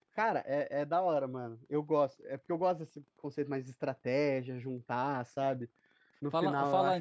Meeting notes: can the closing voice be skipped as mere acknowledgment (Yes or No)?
No